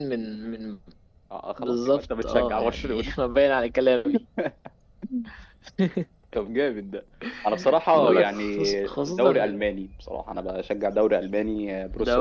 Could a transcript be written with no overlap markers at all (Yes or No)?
No